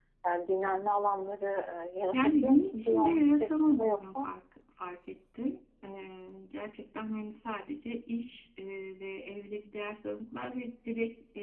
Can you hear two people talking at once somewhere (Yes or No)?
Yes